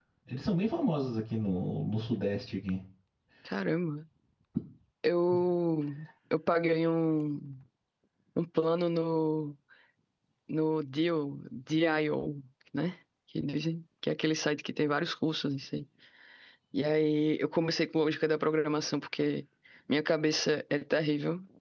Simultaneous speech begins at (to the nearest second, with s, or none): none